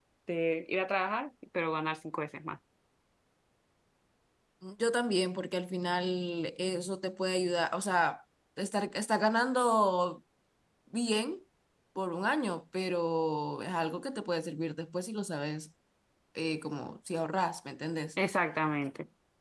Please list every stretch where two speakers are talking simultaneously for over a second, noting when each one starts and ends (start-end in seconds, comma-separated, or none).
none